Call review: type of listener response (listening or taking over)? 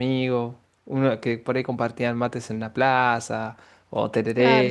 taking over